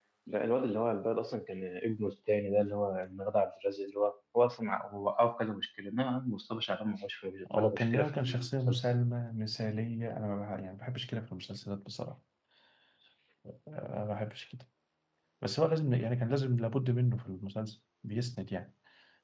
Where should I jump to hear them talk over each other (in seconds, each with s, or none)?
7.5 s